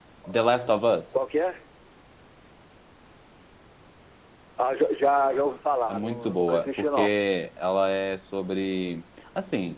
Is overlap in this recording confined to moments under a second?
No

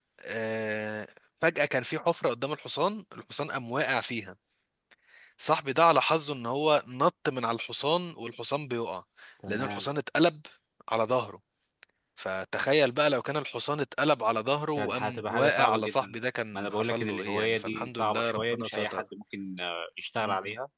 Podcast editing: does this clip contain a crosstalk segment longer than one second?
Yes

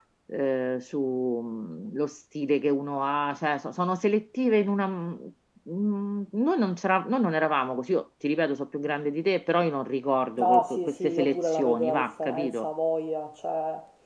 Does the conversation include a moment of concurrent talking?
Yes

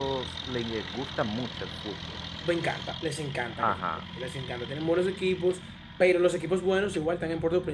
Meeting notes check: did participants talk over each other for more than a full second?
No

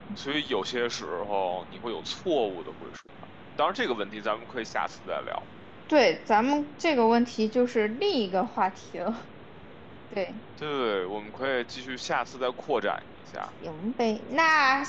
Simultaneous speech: No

